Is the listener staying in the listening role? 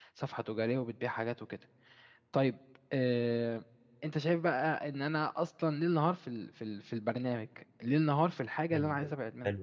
No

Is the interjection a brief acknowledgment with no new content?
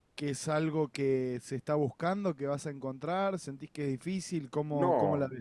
No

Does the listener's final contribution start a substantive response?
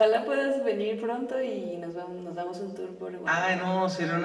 Yes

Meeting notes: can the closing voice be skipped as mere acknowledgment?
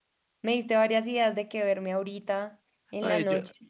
No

